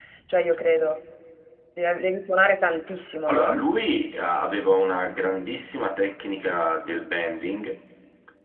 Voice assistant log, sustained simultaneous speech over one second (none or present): none